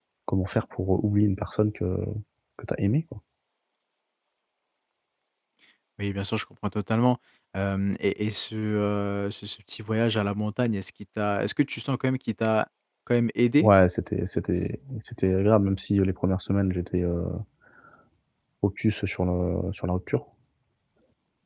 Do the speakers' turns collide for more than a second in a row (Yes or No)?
No